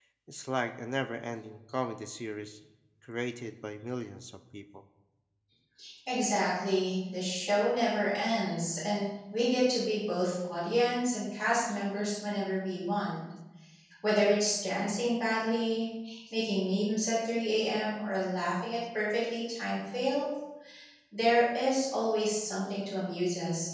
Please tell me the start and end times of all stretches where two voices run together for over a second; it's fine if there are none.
none

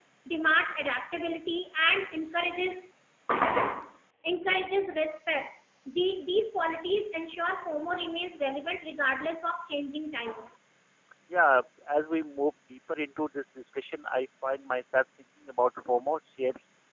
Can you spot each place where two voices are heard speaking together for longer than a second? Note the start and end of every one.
none

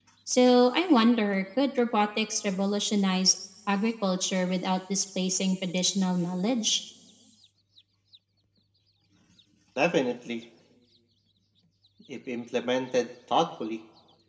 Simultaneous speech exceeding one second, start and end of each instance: none

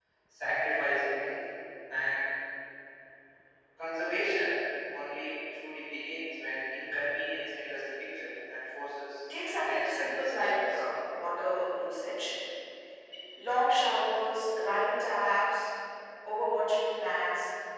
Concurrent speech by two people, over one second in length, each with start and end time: 9.5-10.8

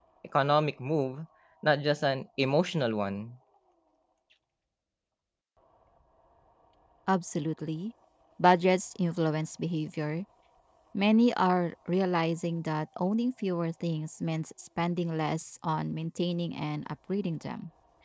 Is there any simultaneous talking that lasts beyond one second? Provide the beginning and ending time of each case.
none

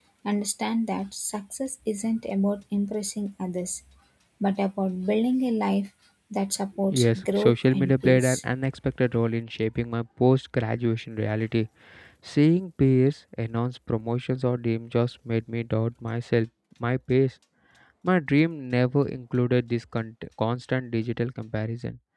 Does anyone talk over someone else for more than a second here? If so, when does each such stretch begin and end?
6.9-8.4

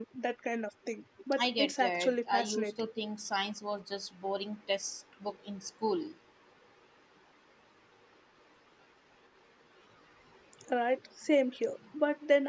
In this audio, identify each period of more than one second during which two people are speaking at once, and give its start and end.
1.4-2.7

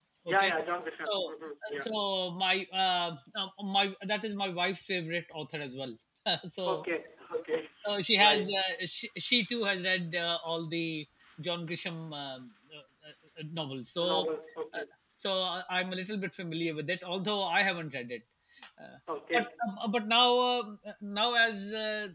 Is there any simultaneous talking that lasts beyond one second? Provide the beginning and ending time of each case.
none

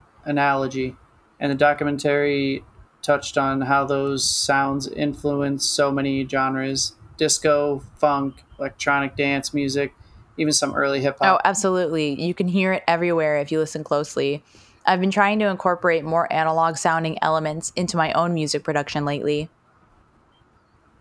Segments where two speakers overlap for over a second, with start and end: none

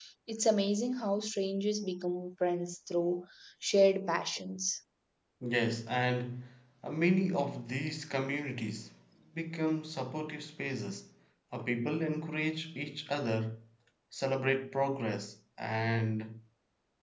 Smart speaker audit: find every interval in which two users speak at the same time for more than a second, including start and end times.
none

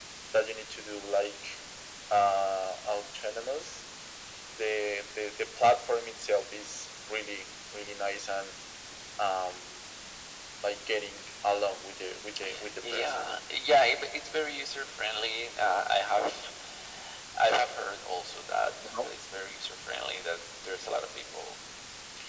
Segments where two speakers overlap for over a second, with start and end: none

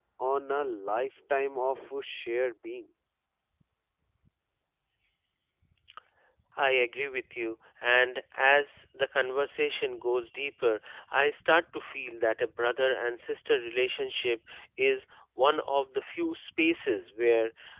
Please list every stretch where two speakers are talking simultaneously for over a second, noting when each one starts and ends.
none

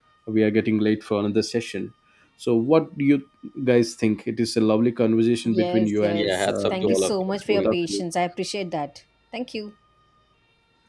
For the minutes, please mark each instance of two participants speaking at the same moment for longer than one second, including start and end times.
5.5-7.1

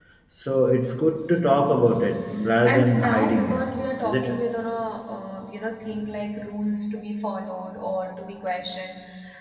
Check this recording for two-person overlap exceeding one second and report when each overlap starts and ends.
2.7-4.4

